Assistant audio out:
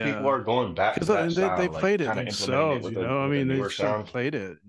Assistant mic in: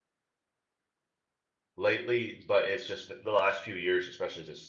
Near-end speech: present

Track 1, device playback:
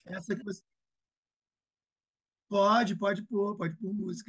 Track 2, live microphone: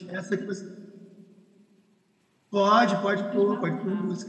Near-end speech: present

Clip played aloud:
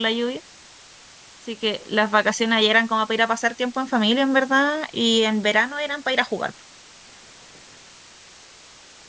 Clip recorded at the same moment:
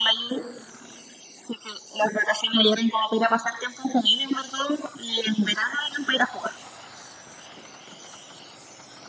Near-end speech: none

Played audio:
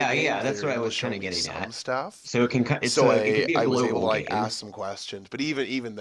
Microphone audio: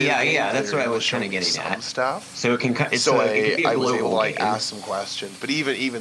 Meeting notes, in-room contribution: none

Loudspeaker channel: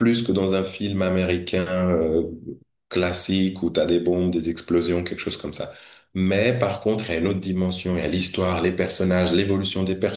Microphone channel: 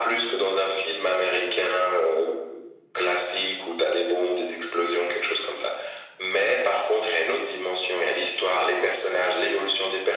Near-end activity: none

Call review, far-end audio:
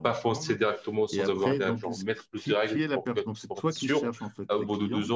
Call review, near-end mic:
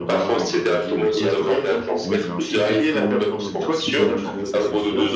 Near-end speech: present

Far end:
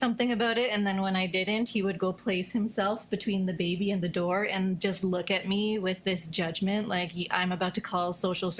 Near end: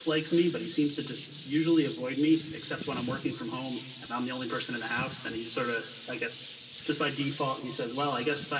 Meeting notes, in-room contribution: present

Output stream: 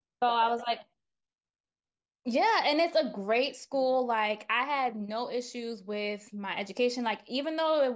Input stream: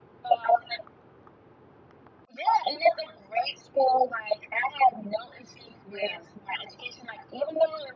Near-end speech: present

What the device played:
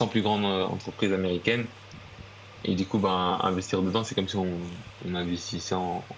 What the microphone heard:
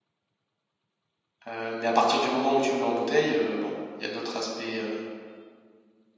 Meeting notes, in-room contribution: present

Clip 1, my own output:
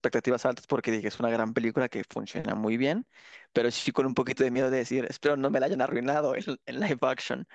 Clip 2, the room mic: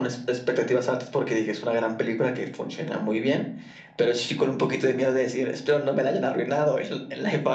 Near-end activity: none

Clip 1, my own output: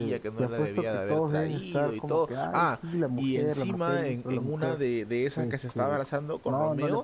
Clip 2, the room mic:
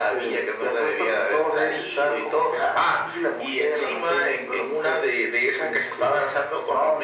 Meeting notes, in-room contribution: none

